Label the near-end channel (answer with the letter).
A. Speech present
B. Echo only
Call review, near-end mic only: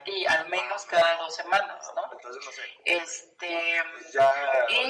B